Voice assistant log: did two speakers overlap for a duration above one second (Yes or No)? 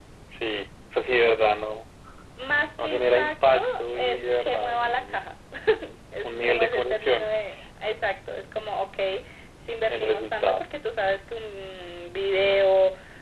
Yes